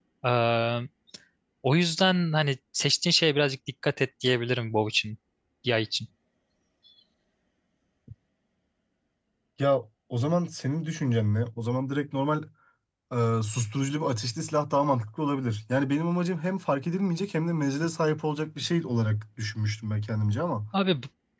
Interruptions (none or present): none